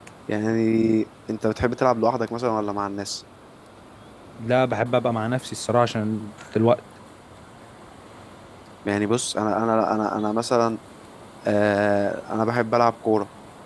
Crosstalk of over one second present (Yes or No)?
No